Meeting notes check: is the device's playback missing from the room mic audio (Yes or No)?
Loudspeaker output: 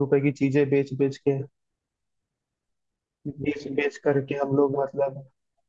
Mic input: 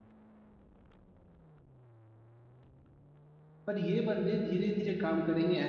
Yes